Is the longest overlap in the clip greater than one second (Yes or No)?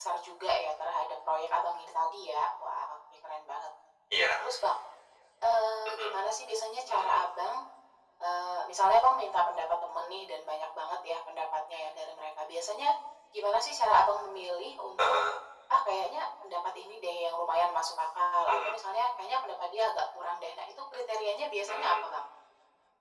No